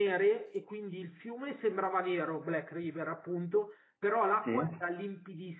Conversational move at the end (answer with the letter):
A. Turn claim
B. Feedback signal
B